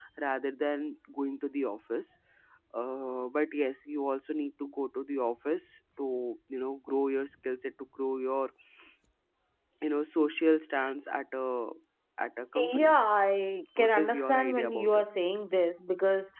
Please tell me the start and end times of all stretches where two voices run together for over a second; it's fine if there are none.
13.8-15.0

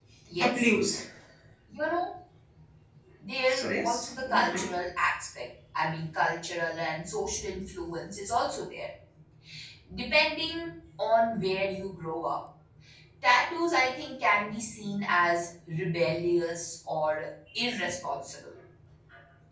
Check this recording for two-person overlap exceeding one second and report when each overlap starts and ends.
3.5-4.7

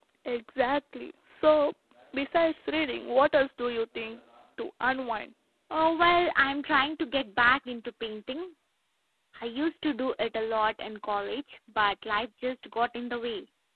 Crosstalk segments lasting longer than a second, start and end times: none

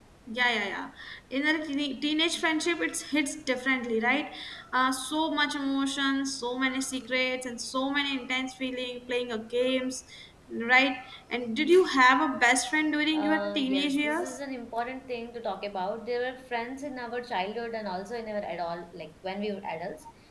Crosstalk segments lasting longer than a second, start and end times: 13.1-14.4

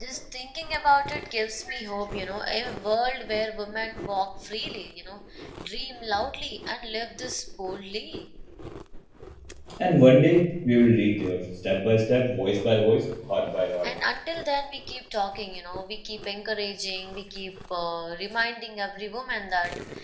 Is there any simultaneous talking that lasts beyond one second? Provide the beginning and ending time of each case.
none

